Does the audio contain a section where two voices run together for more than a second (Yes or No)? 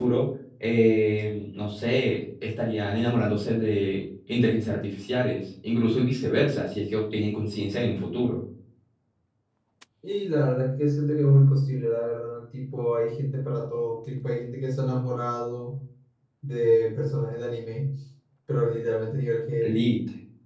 No